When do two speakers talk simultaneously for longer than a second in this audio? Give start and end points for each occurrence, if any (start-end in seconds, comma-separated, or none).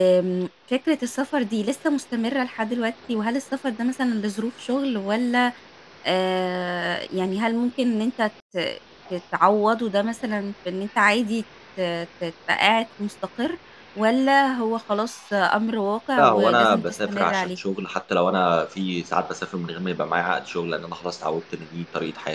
16.2-17.6